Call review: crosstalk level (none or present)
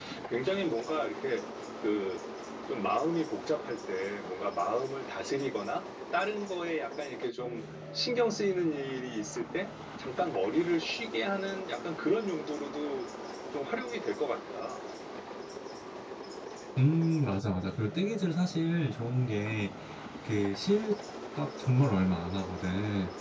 none